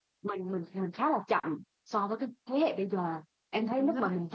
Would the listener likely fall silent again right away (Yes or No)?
Yes